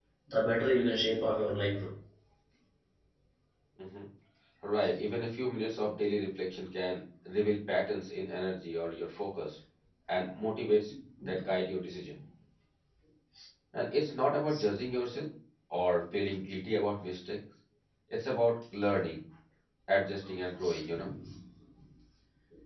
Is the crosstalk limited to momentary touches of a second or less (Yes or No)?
Yes